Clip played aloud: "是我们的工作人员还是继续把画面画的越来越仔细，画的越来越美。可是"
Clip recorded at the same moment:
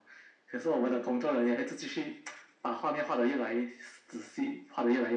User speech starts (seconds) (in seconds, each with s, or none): 0.7 s